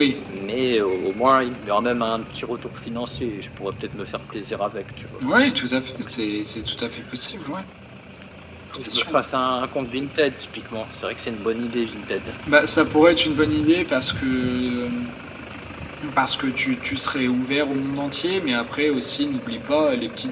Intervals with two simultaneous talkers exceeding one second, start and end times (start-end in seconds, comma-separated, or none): none